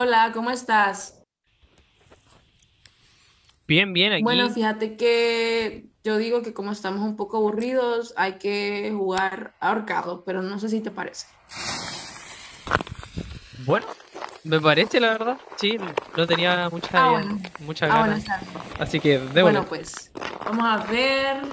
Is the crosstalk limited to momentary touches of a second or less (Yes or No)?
Yes